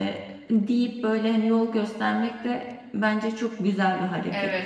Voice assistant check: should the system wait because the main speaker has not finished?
No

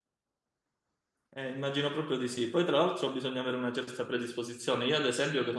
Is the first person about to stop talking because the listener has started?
No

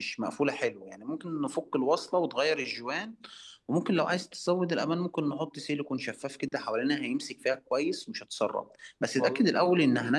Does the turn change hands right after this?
No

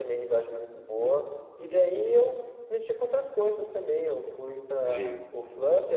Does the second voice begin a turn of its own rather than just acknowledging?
No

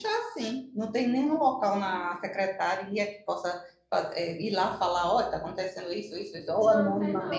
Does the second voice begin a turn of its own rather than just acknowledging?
Yes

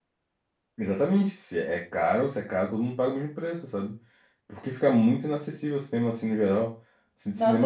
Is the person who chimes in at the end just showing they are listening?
No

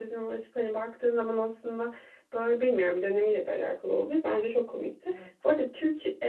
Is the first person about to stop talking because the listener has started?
No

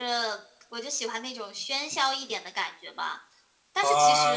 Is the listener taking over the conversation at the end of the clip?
Yes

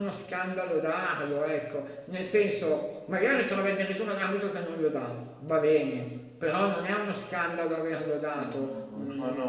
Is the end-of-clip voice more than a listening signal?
Yes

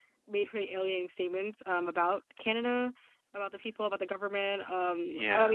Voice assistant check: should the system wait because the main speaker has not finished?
Yes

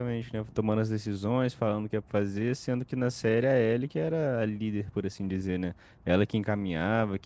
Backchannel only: Yes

